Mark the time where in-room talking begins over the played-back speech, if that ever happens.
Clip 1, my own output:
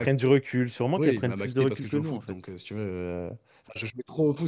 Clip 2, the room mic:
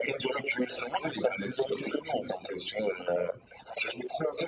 none

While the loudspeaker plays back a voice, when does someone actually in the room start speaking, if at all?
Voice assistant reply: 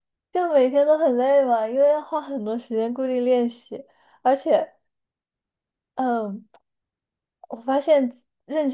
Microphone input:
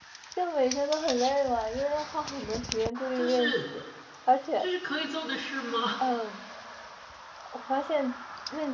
3.1 s

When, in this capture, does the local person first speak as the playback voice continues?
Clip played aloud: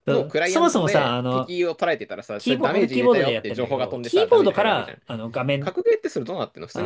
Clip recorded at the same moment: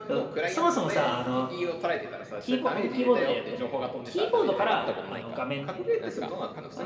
4.7 s

